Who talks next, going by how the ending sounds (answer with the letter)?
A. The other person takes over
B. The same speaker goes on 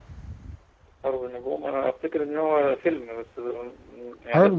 A